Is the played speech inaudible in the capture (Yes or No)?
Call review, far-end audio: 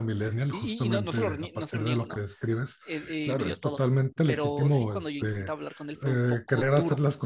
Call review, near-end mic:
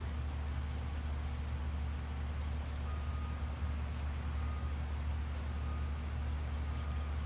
Yes